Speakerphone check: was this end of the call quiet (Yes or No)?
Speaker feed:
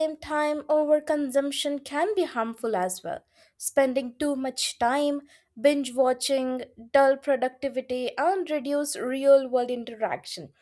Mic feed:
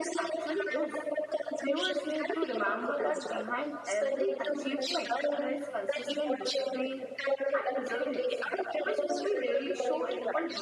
No